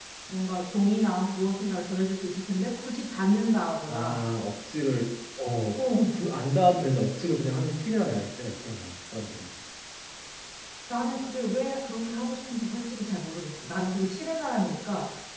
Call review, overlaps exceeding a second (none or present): none